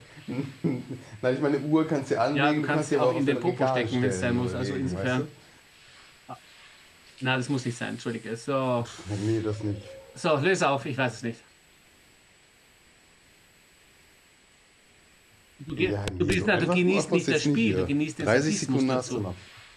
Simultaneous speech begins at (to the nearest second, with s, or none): 2 s